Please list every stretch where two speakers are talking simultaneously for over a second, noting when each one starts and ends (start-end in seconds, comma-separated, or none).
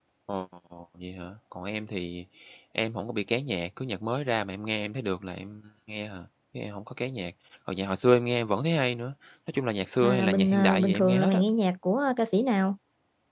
10.0-11.4